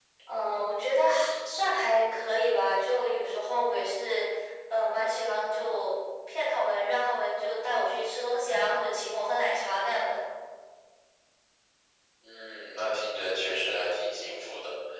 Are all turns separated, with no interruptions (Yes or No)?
Yes